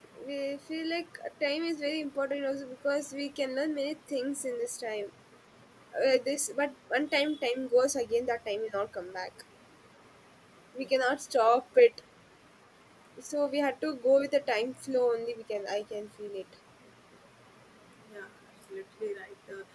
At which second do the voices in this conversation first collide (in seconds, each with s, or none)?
none